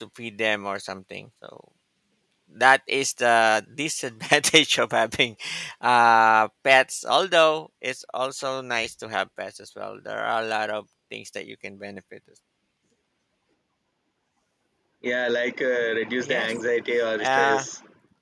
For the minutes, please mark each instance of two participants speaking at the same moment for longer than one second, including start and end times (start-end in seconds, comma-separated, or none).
none